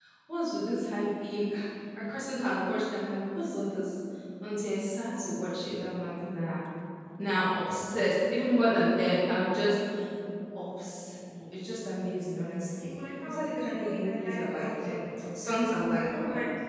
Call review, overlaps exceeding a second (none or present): present